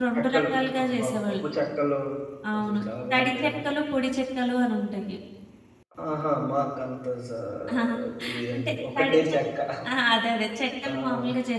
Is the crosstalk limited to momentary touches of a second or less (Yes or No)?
No